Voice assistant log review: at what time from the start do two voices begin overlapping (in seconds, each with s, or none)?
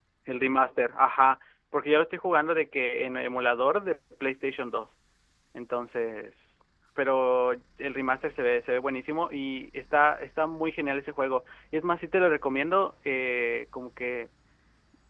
none